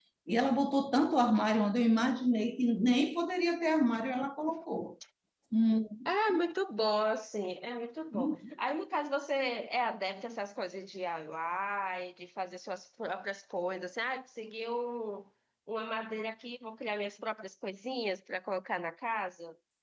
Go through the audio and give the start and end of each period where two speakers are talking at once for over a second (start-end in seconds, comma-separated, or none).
none